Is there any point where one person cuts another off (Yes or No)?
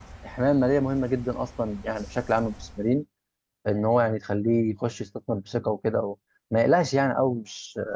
No